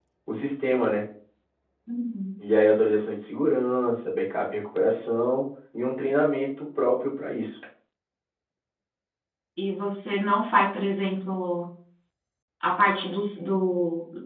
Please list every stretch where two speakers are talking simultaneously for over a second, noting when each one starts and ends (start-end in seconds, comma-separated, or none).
none